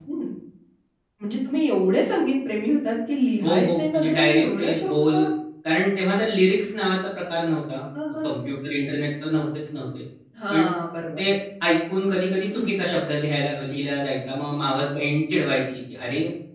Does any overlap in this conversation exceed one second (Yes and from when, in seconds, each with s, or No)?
Yes, from 3.4 s